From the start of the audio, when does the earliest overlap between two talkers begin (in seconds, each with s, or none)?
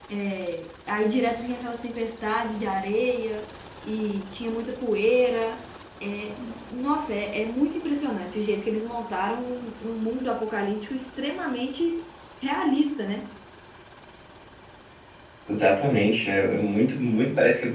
none